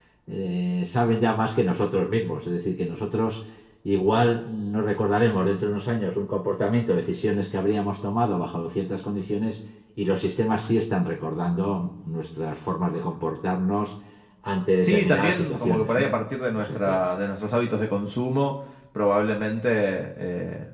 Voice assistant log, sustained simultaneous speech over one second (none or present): present